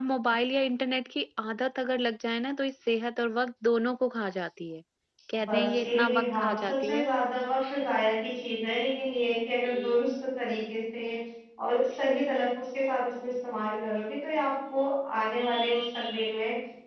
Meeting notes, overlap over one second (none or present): present